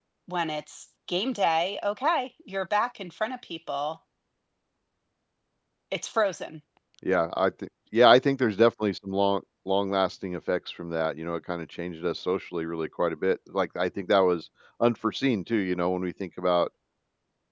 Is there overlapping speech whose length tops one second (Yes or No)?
No